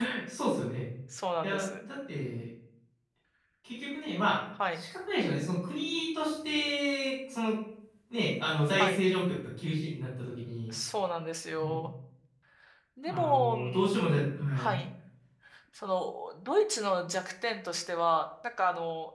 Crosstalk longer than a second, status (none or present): present